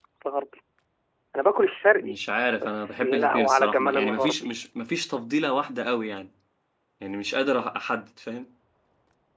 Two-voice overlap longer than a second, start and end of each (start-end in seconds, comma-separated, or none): 2.6-4.5